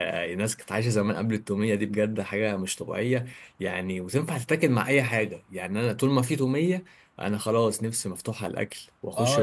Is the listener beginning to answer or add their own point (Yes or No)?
Yes